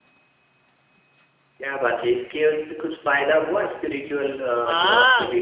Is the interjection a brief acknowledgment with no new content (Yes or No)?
No